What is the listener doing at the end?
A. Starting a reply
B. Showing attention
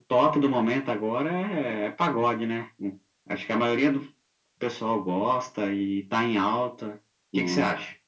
A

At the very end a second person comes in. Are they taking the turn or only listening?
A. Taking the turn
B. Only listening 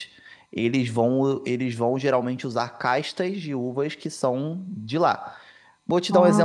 B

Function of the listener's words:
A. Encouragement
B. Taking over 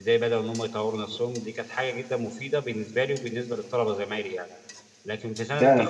B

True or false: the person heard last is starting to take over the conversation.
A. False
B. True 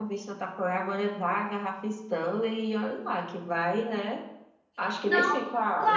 B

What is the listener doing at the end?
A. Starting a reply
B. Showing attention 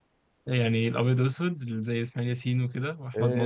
A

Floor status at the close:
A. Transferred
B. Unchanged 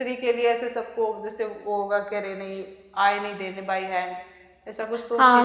A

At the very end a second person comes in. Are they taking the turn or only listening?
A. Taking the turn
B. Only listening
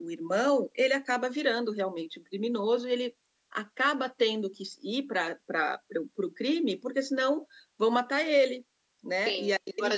A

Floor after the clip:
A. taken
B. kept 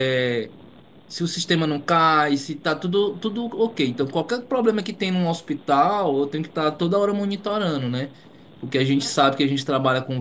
B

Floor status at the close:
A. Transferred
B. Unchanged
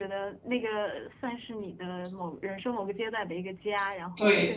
A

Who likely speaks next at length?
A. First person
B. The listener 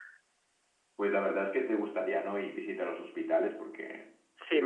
B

